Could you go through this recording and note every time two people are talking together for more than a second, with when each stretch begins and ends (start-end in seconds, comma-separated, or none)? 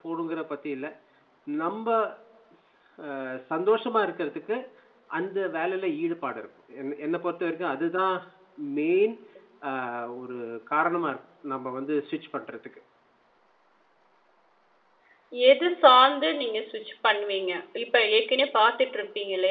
none